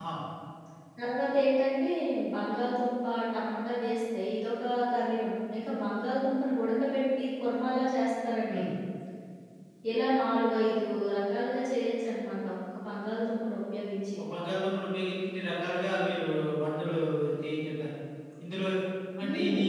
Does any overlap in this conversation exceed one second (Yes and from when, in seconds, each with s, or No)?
No